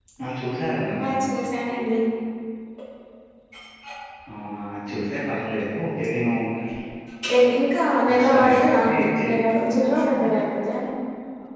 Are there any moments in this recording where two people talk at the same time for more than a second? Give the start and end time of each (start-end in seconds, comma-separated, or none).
8.1-9.6